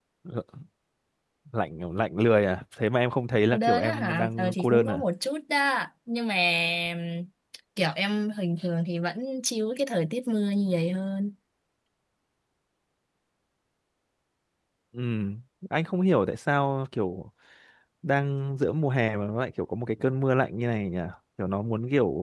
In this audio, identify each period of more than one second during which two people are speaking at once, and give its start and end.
3.5-5.0

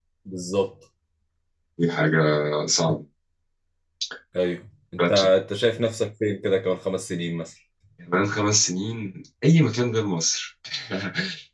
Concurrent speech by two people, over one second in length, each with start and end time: none

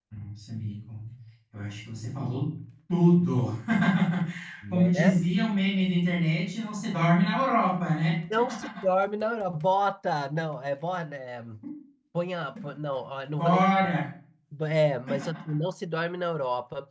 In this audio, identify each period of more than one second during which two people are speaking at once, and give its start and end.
none

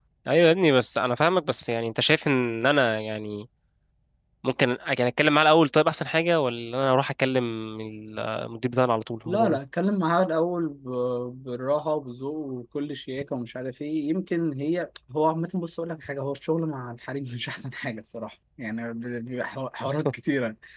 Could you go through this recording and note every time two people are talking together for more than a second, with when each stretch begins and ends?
none

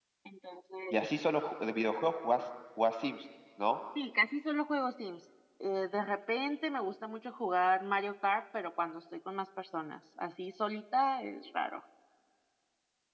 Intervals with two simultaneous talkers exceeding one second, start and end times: none

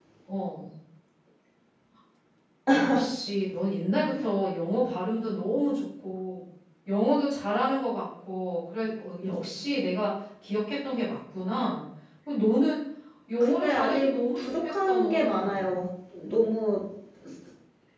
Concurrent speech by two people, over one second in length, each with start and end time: 13.4-15.7

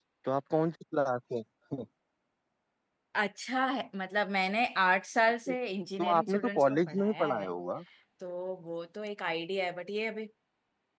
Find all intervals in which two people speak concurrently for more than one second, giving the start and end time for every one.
6.0-7.5

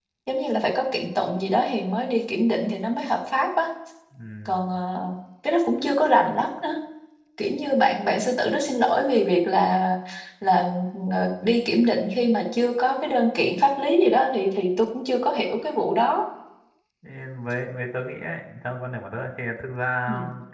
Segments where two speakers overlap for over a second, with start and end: none

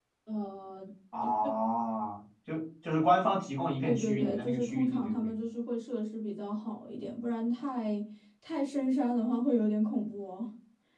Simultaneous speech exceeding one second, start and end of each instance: 3.8-5.3

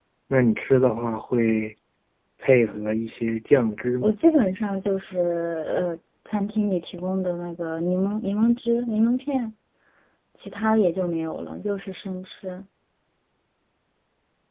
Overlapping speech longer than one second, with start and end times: none

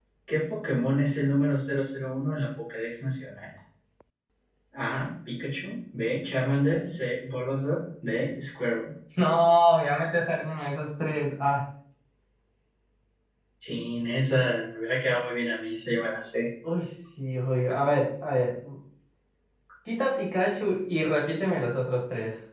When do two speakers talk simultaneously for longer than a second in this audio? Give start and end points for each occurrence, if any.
none

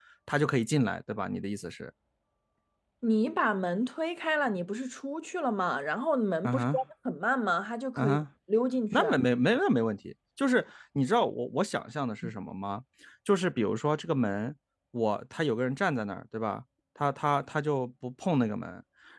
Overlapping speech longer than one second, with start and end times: none

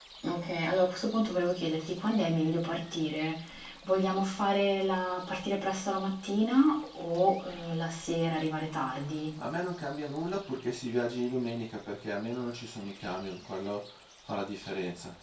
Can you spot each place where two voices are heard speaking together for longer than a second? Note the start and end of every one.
none

